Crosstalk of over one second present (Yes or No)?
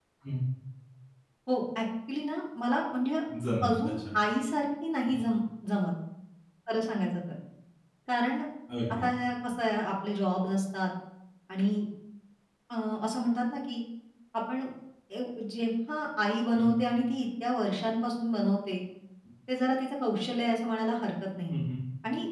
No